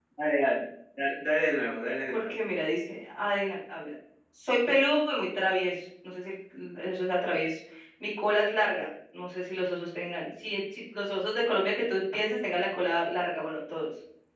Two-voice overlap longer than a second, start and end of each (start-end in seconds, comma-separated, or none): none